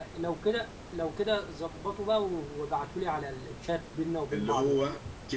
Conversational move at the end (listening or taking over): taking over